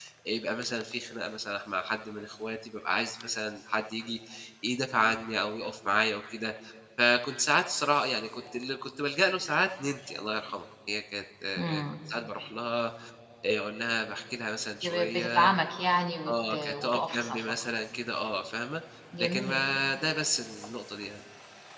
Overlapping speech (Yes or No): Yes